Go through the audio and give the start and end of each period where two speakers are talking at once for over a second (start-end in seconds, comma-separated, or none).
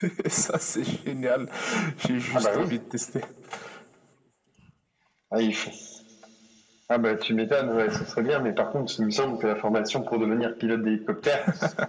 none